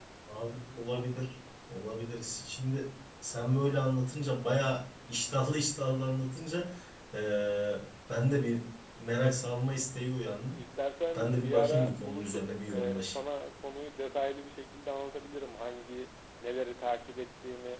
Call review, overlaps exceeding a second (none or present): present